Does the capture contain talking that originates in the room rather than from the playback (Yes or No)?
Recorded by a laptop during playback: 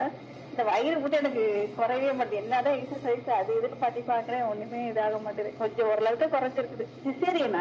No